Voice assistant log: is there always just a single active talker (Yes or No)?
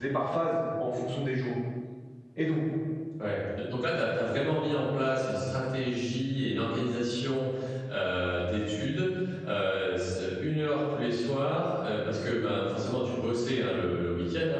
Yes